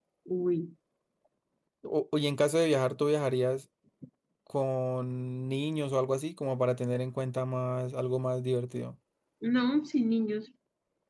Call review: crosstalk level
none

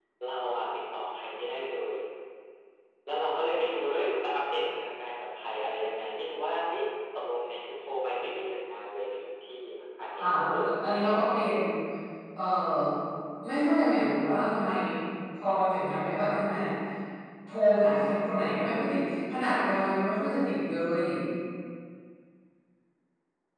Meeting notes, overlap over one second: present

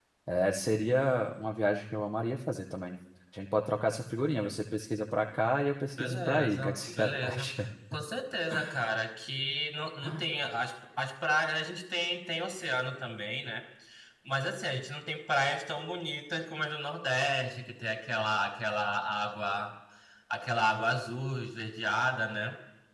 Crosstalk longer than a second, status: present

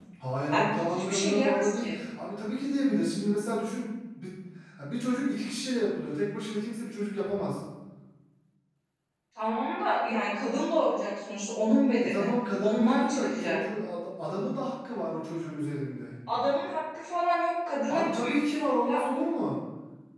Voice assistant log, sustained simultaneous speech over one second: present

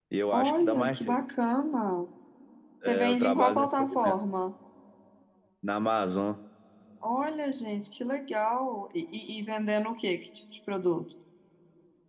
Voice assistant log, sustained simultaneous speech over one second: present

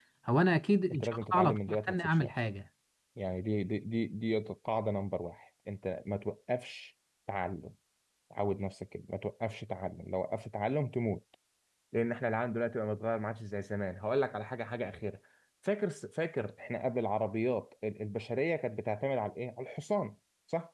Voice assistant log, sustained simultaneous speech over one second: present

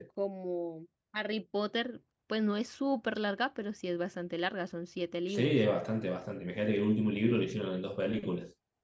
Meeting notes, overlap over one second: none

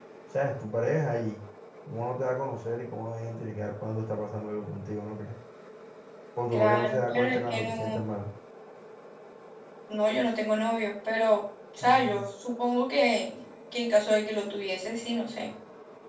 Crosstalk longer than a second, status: present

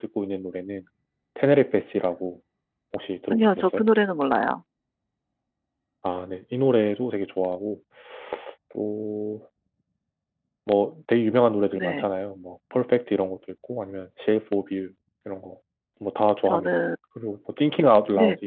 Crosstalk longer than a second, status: none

